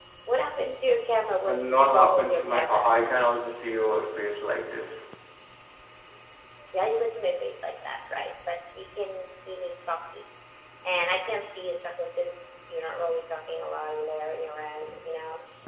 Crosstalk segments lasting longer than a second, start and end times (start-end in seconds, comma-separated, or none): 1.5-2.8